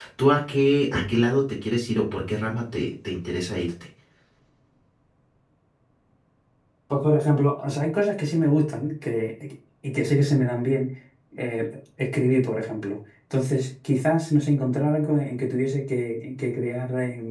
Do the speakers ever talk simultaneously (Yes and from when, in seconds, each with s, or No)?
No